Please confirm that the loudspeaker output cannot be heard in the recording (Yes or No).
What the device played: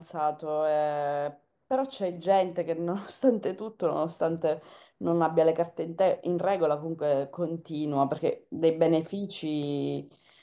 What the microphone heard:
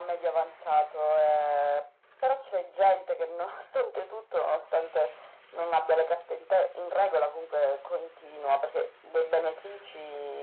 No